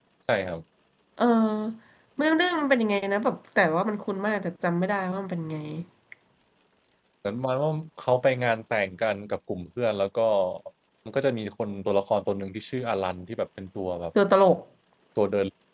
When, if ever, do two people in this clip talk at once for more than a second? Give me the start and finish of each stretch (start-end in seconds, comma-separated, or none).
none